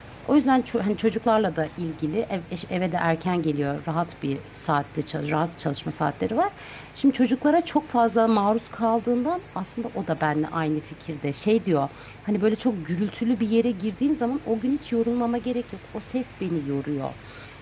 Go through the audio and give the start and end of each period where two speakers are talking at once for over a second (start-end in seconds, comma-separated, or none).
none